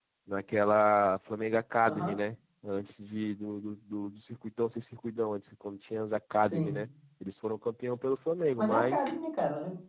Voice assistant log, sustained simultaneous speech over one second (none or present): none